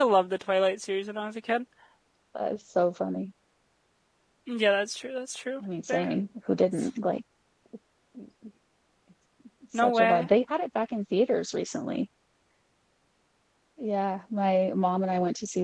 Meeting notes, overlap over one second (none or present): none